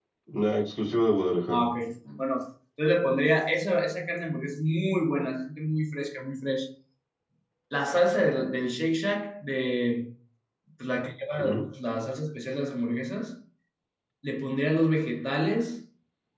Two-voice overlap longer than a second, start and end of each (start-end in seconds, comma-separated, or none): none